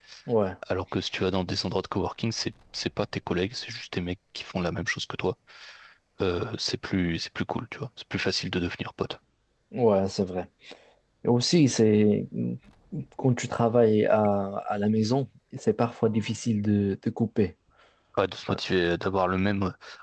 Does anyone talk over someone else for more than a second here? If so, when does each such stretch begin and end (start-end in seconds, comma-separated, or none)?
none